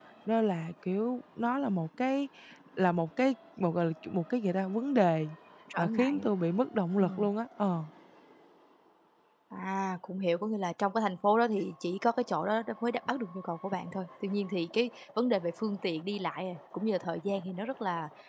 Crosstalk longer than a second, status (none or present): none